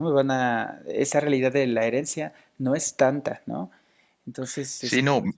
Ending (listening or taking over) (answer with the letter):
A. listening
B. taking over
B